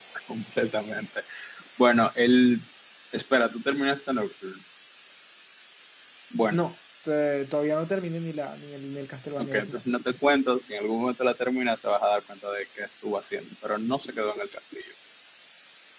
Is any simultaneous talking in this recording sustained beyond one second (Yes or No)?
No